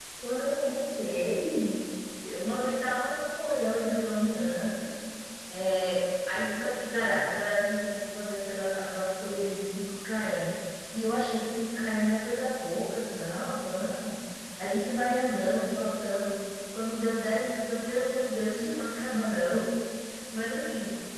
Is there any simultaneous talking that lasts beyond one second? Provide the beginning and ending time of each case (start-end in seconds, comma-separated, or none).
none